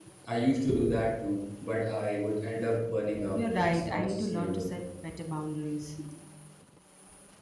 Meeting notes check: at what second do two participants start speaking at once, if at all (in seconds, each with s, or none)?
3.1 s